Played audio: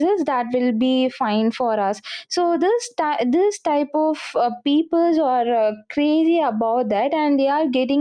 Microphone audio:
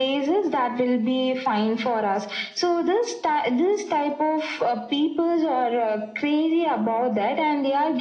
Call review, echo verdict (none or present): present